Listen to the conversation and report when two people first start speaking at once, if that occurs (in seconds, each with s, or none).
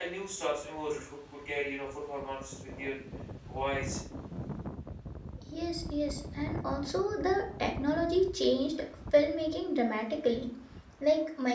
none